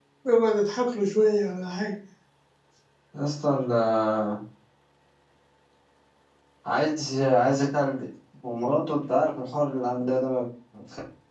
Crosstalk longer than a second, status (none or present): none